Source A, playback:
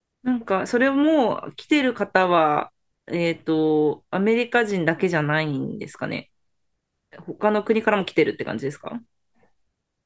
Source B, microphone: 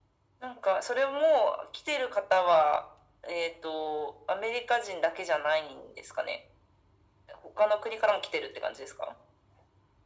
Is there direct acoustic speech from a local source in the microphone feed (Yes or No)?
No